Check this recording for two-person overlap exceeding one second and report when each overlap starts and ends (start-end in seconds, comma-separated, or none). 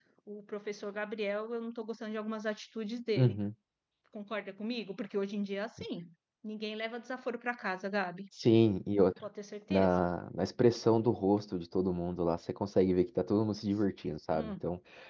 none